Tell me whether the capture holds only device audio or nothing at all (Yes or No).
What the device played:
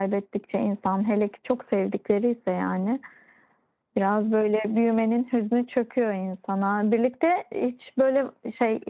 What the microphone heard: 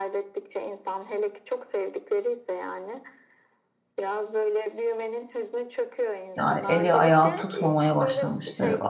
No